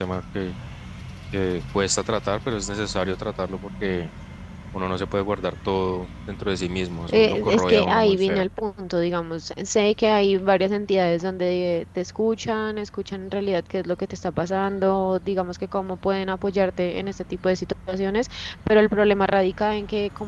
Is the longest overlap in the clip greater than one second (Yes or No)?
Yes